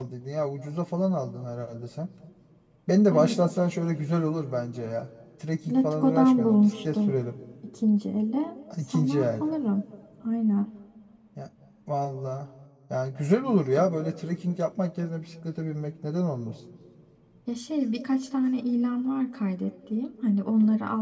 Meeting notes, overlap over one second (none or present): present